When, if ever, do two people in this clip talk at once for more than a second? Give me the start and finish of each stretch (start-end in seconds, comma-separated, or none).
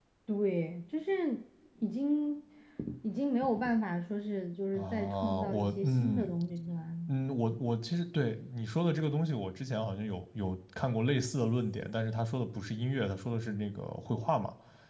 4.8-6.3